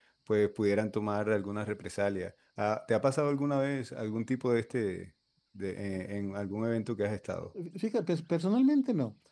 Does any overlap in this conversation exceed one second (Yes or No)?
No